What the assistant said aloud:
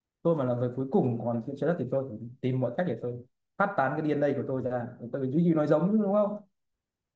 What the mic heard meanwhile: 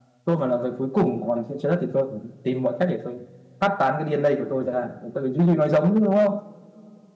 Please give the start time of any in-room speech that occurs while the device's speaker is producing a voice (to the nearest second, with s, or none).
none